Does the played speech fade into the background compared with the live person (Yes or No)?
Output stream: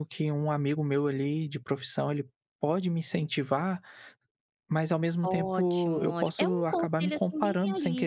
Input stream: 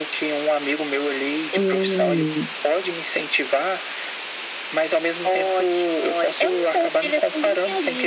Yes